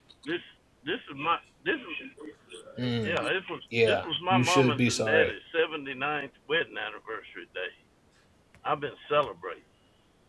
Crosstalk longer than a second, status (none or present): present